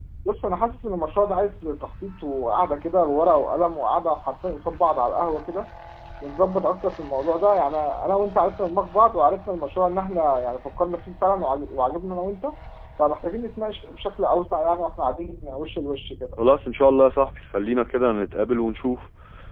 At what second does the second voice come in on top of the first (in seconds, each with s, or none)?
none